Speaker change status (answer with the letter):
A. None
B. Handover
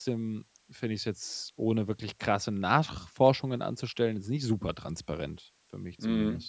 B